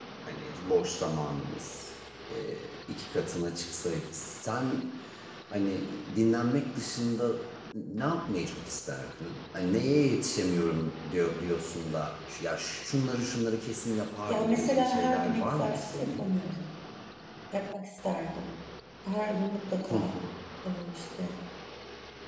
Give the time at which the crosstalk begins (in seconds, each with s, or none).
14.3 s